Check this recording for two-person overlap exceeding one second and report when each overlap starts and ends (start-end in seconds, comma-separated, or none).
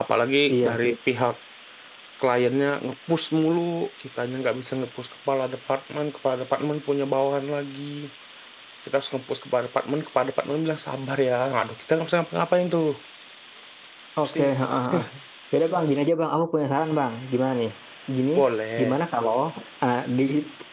none